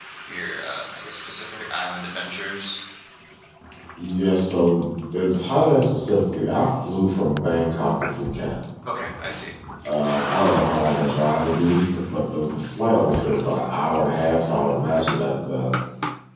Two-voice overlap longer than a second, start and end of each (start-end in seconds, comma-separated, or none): none